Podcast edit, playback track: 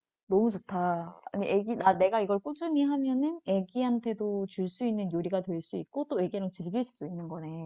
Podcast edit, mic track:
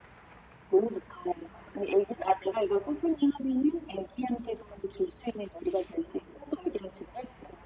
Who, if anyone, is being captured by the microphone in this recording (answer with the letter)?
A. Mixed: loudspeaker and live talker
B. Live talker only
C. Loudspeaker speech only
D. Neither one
C